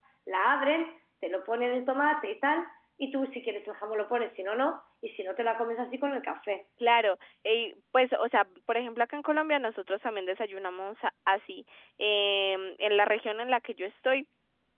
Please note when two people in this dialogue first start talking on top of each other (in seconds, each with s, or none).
none